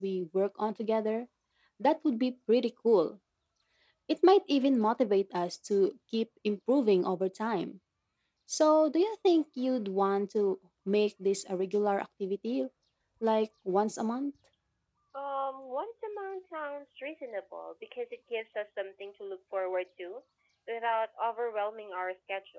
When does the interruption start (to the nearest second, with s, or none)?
none